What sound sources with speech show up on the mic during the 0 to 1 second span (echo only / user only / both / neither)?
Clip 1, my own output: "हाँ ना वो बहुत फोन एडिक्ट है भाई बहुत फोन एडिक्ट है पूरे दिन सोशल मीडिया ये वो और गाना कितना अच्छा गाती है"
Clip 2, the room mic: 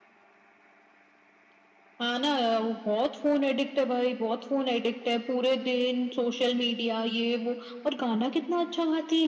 neither